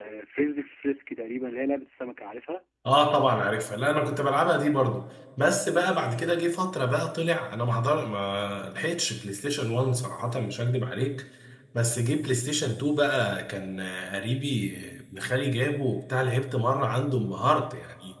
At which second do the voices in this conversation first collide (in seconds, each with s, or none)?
none